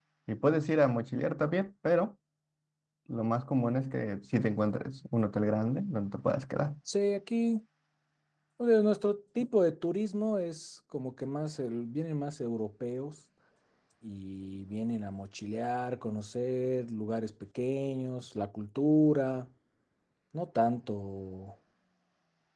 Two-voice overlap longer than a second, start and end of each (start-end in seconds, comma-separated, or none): none